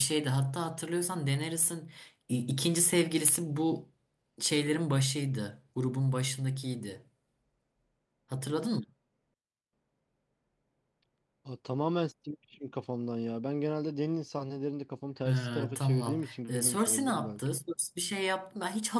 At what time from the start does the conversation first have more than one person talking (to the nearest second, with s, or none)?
15 s